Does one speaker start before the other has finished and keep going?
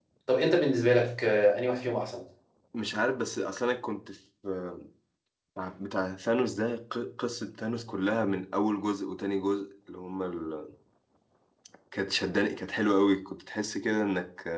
No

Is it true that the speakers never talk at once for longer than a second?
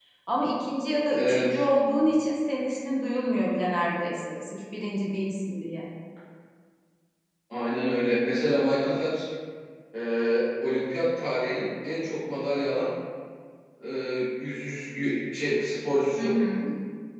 Yes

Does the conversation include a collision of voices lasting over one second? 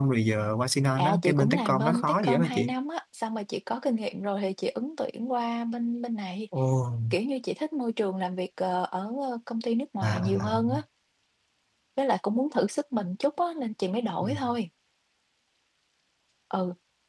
Yes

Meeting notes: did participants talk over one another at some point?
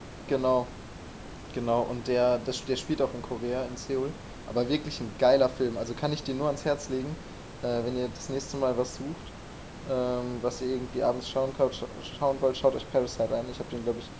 No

